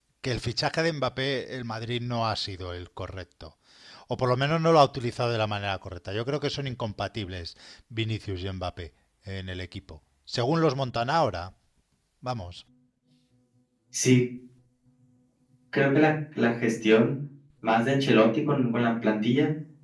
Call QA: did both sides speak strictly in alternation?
Yes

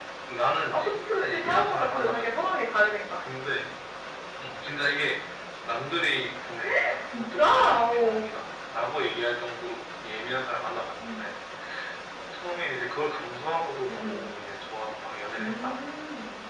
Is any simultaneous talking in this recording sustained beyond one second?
Yes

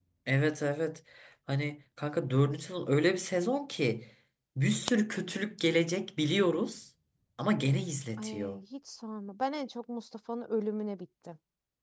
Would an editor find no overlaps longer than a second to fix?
Yes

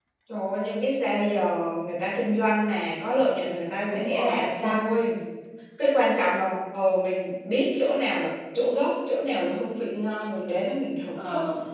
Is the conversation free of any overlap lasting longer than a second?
No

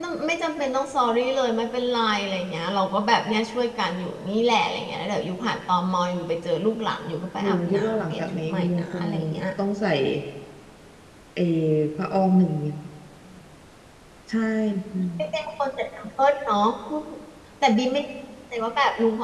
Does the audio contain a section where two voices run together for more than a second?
Yes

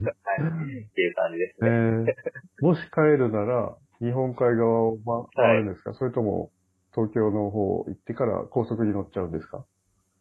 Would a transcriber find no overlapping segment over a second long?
Yes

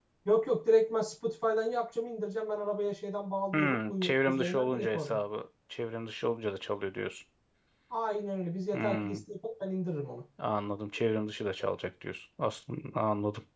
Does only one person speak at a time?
No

